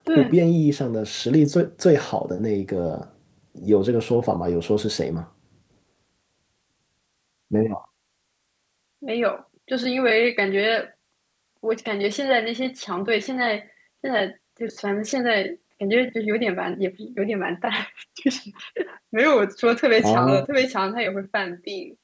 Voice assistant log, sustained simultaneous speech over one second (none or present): none